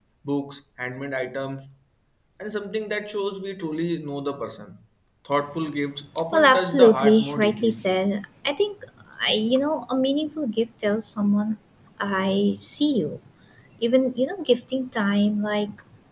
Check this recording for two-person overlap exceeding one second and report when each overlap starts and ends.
6.3-7.8

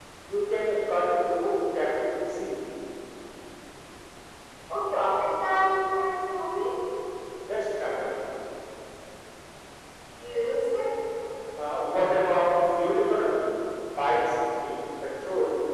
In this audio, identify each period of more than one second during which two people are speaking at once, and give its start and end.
none

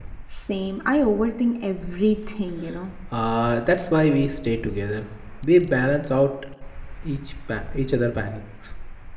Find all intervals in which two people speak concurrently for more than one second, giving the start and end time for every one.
none

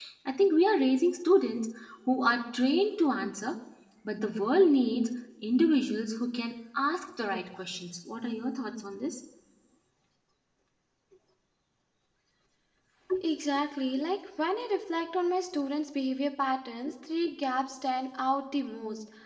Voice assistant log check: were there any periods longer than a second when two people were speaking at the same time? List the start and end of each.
none

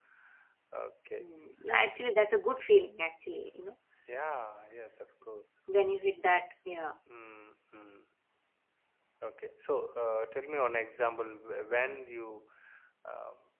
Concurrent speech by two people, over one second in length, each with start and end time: none

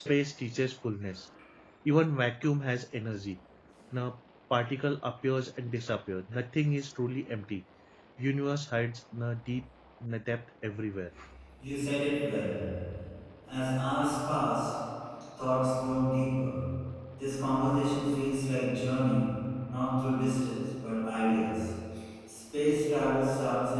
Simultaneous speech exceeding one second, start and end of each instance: none

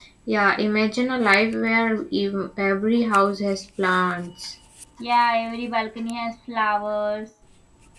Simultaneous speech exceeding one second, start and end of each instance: none

